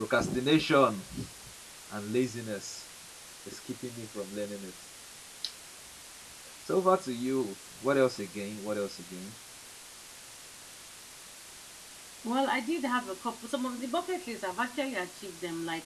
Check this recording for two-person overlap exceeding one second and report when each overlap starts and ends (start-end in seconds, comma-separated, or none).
none